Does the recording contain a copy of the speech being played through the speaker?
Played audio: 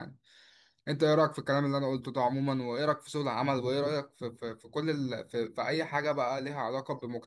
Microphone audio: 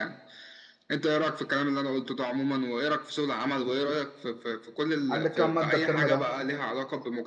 Yes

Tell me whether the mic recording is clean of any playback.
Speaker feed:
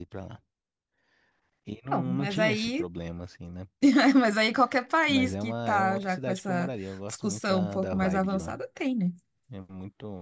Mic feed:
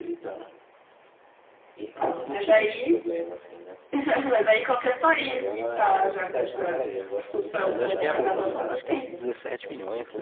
No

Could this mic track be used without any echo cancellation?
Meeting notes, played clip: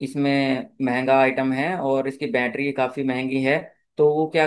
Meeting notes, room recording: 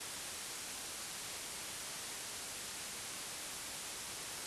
Yes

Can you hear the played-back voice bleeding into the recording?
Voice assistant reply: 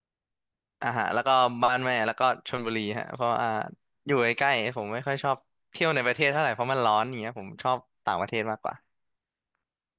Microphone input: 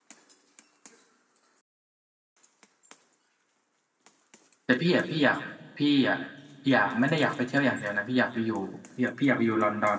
No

